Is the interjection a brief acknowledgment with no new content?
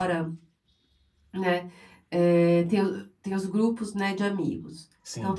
Yes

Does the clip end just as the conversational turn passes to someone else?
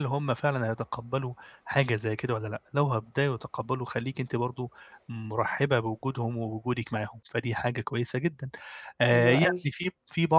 No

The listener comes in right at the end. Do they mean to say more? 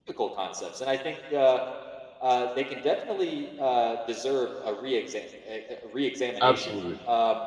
No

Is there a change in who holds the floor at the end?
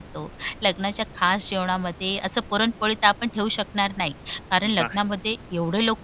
No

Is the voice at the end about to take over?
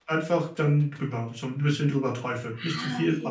Yes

